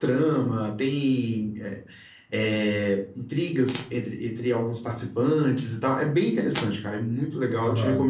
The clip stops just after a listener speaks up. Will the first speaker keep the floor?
No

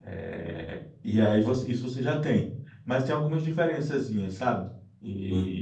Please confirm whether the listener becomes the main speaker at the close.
Yes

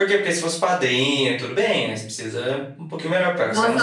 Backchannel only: No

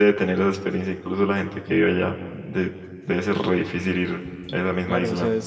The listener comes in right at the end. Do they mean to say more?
Yes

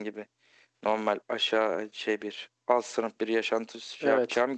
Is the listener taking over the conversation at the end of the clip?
No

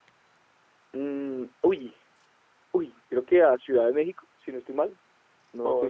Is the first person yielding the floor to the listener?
Yes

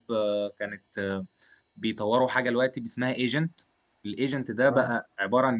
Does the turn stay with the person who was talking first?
Yes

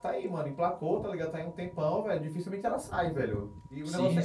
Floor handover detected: Yes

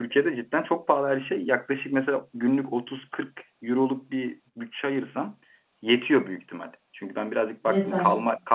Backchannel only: Yes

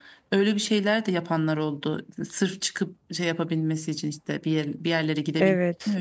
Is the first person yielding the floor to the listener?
Yes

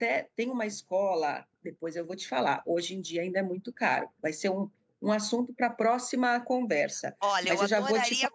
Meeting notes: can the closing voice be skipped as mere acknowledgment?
No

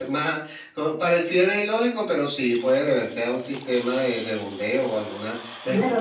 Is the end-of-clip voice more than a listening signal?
Yes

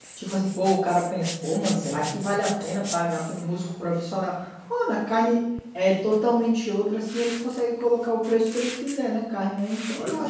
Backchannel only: No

